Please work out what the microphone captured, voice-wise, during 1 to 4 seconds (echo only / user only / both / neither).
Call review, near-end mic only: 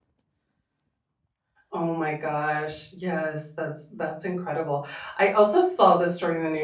user only